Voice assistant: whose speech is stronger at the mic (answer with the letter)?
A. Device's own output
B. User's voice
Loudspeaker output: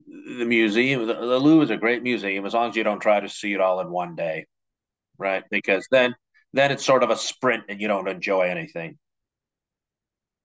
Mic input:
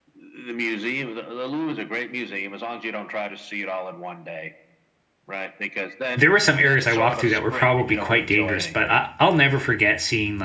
B